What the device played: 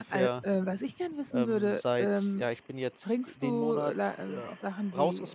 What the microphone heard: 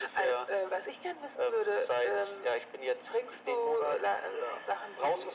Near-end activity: none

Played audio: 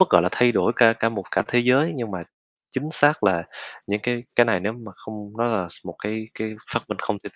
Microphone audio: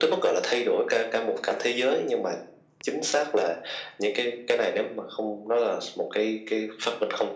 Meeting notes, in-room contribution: none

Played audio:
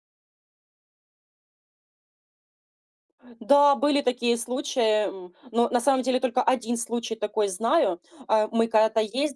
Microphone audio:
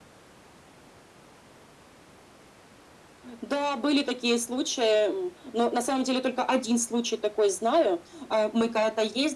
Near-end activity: none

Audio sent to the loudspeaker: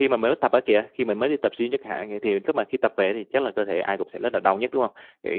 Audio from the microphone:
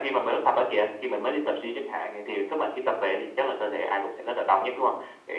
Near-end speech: none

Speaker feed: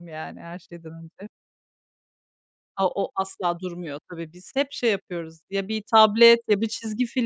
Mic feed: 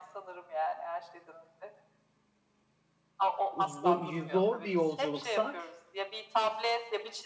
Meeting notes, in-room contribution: present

